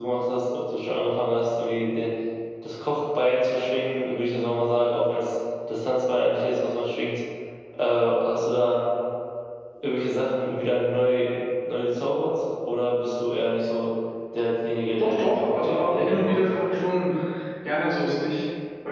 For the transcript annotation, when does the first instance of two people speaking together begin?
15.0 s

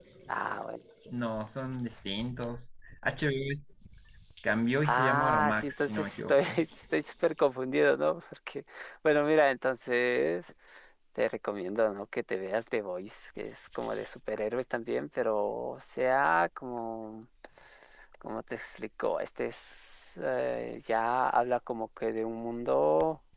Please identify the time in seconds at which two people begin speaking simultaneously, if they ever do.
4.8 s

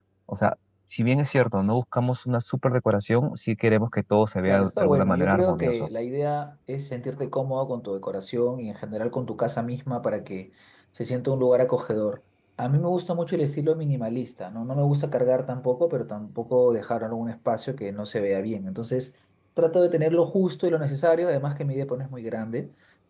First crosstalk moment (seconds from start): 4.5 s

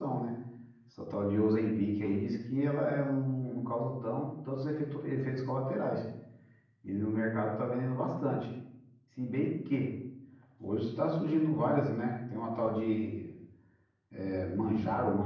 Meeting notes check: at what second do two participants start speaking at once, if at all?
none

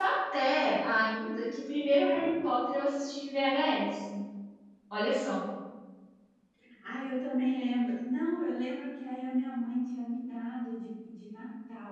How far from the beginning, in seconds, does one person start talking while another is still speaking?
none

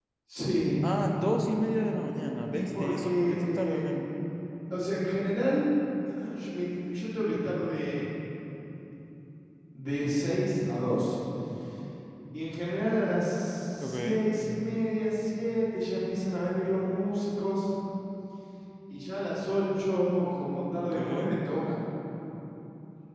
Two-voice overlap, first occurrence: 2.5 s

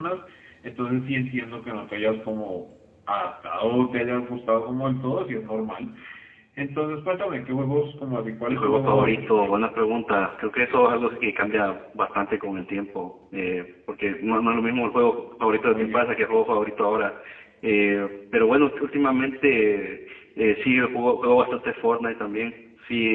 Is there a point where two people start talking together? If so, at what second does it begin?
8.5 s

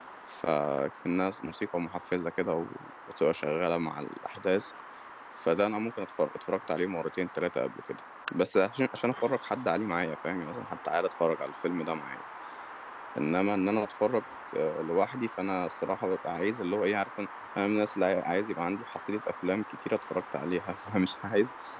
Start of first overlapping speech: none

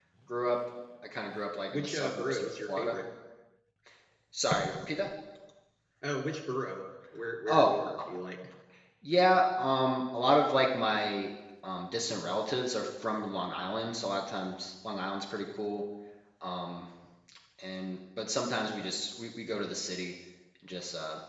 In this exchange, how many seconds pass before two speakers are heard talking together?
1.7 s

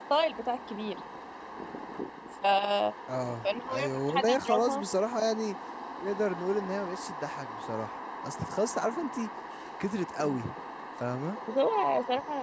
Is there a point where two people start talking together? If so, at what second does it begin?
3.4 s

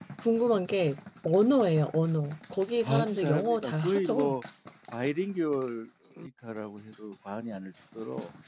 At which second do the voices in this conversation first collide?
2.8 s

